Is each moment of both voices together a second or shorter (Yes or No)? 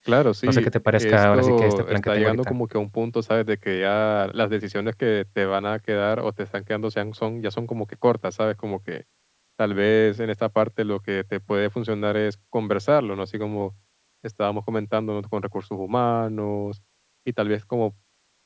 No